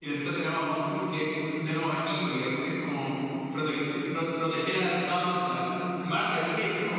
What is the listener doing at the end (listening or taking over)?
listening